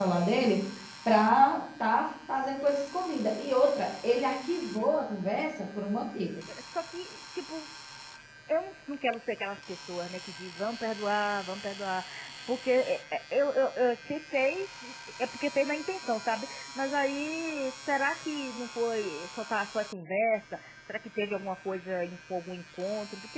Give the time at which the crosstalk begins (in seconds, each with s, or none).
none